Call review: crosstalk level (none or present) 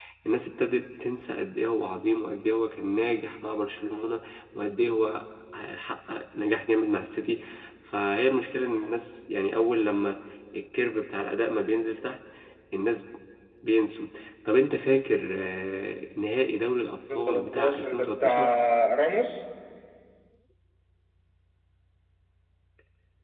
present